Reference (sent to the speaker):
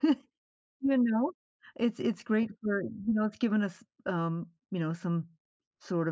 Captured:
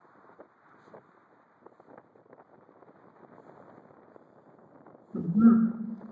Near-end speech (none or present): present